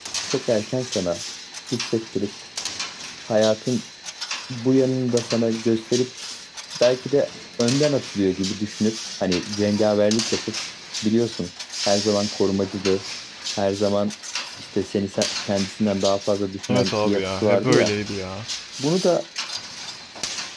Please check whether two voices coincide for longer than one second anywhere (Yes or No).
Yes